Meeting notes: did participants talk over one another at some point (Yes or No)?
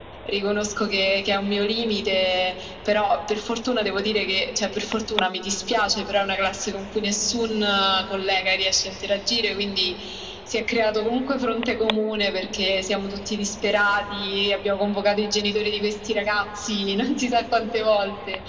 No